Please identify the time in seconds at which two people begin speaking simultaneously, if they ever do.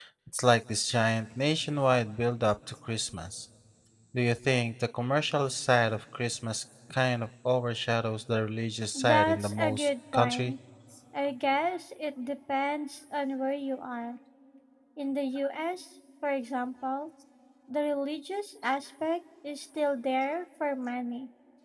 8.9 s

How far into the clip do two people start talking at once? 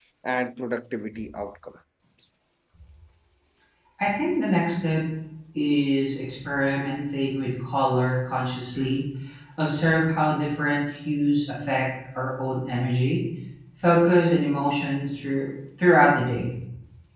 none

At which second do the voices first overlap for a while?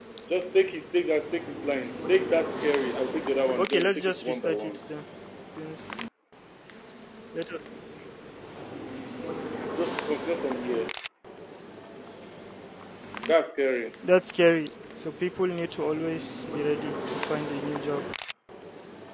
3.6 s

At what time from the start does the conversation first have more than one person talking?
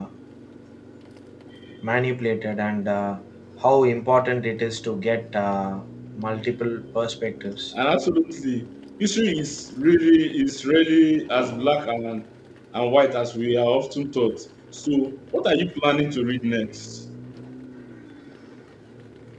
none

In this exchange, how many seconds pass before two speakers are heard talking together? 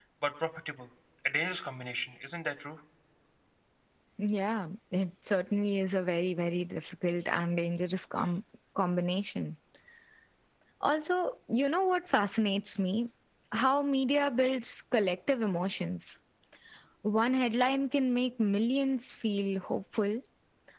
none

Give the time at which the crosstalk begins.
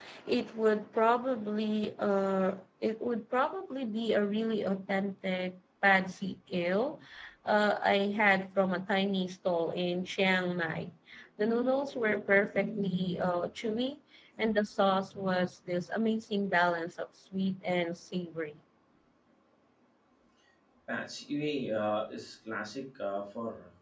none

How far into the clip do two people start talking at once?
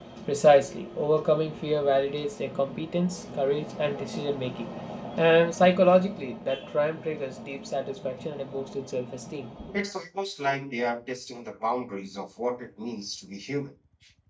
none

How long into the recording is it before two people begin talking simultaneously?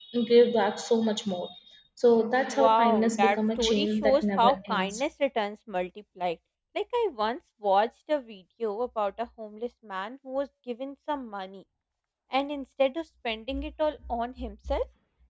2.5 s

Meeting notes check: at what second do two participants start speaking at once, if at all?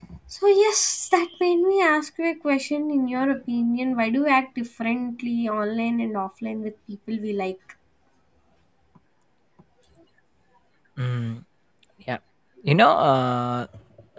none

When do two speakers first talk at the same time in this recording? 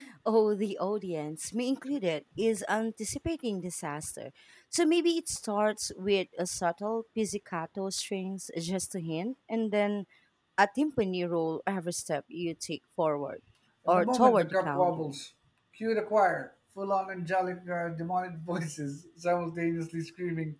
13.9 s

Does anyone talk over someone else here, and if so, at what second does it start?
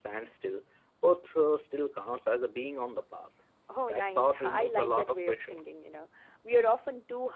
3.8 s

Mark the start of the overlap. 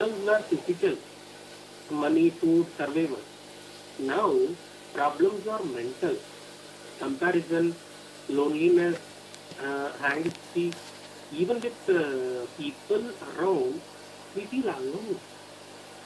none

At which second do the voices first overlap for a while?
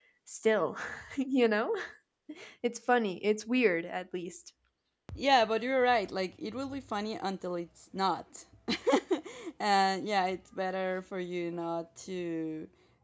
none

